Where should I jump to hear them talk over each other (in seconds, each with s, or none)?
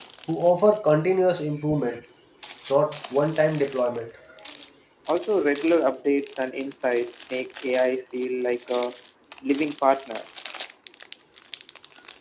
none